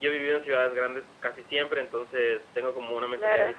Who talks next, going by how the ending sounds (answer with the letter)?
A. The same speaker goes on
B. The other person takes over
A